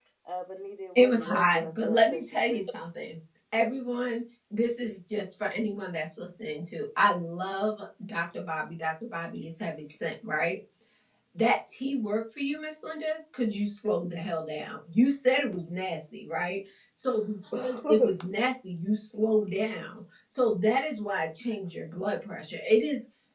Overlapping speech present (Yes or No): Yes